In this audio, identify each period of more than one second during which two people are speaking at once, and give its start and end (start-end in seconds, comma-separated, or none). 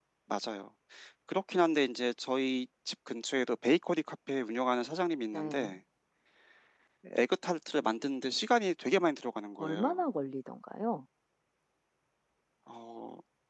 none